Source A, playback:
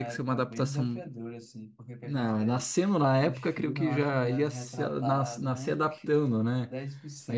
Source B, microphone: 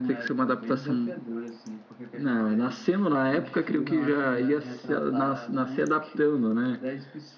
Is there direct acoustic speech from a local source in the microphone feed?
No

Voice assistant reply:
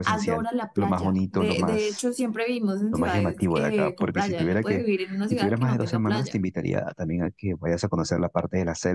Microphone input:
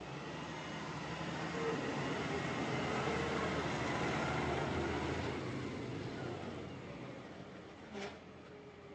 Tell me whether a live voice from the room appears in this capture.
No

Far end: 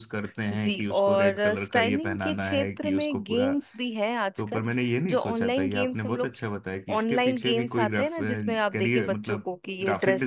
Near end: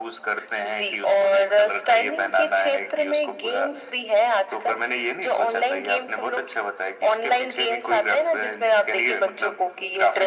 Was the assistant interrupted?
No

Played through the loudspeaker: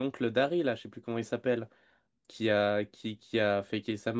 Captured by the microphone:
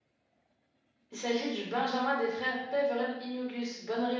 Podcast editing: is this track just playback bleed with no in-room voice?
No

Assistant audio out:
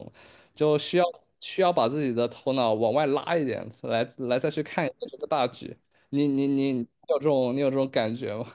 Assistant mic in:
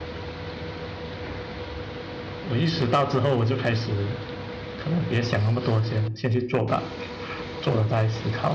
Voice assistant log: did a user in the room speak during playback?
Yes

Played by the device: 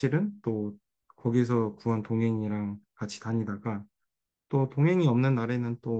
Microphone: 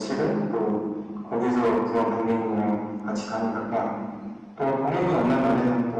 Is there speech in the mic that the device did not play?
No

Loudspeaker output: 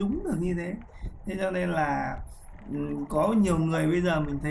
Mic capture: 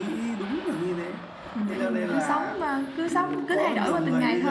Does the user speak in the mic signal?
Yes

